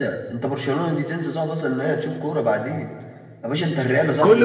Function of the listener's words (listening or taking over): taking over